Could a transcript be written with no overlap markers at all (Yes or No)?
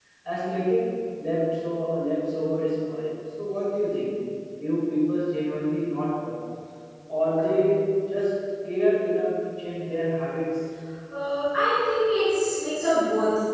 Yes